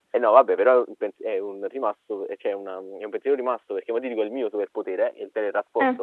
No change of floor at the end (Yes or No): Yes